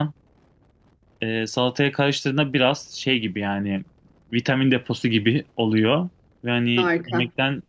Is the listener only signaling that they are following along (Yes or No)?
Yes